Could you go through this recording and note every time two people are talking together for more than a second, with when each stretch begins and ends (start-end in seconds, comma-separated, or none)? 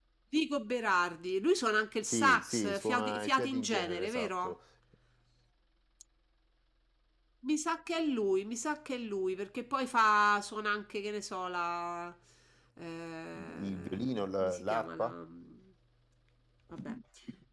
2.0-4.5, 13.6-15.1